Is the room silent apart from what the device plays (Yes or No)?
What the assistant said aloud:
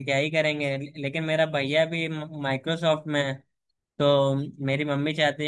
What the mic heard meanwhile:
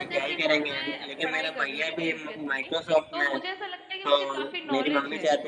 No